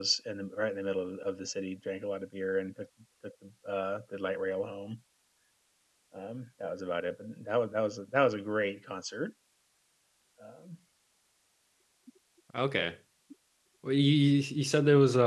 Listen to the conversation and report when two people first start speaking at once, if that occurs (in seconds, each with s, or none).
none